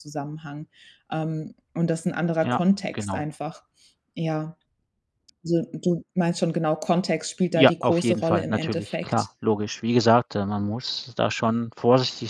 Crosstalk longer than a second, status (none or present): present